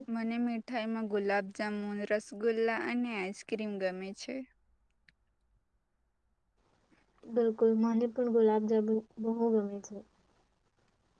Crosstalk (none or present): none